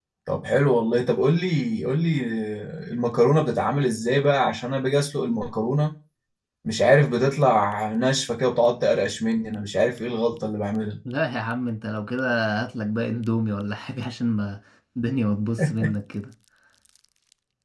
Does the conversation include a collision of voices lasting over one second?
No

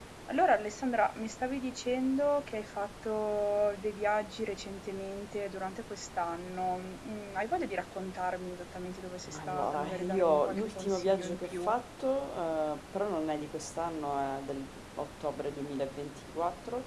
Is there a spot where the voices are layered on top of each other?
Yes, from 9.3 s

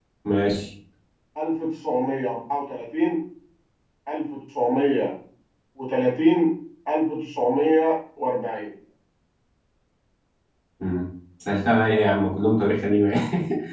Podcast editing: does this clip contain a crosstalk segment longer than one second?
No

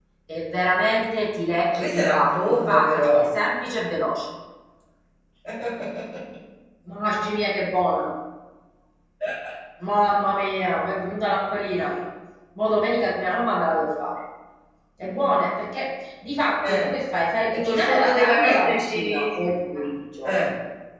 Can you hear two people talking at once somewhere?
Yes, from 1.7 s

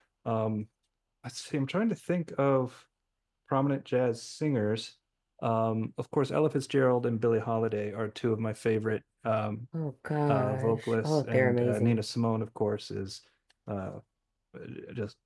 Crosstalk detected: Yes, from 10.3 s

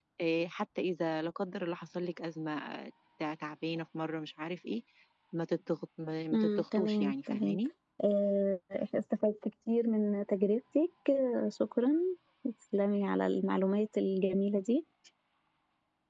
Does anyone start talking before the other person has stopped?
Yes, from 6.3 s

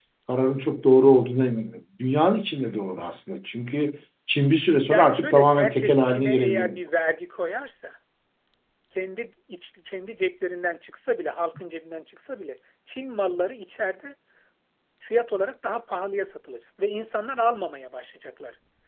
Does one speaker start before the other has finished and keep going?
Yes, from 4.9 s

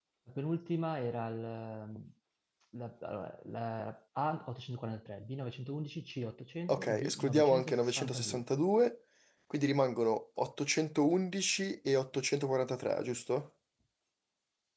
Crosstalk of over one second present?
Yes, from 6.7 s

